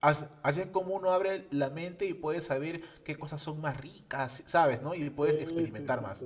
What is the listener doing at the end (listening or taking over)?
taking over